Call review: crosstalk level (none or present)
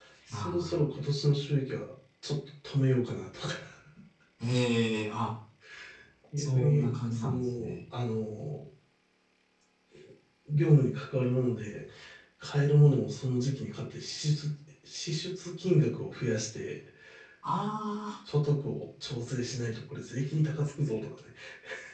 present